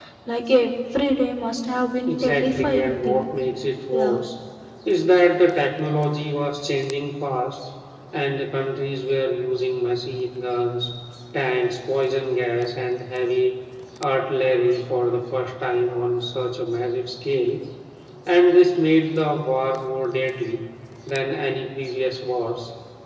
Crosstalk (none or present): present